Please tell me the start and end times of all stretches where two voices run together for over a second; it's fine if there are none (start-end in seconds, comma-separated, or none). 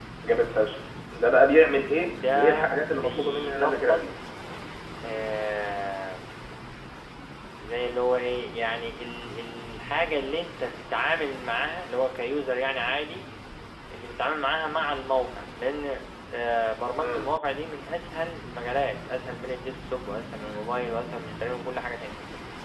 2.1-4.0